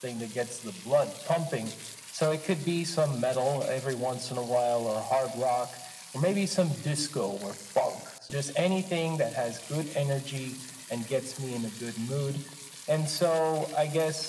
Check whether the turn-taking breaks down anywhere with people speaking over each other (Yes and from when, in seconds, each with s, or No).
No